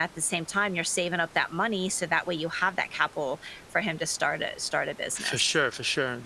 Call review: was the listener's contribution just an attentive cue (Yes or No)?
No